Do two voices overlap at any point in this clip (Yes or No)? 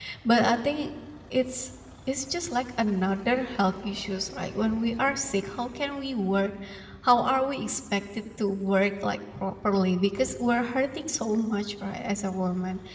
No